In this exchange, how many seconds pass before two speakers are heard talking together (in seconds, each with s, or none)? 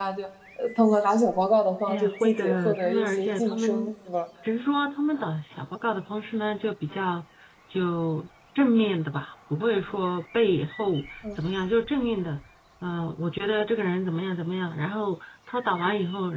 1.9 s